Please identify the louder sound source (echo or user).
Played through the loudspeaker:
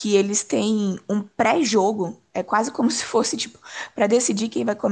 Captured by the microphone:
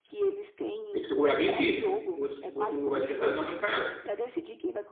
user